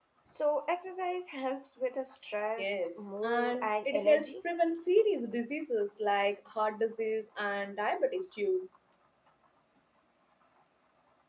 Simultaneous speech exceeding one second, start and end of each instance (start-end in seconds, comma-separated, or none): 2.6-4.3